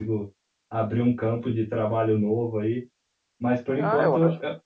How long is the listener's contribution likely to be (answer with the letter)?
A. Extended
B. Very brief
A